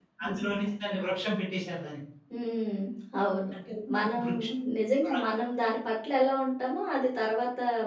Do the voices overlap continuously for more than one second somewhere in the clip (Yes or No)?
No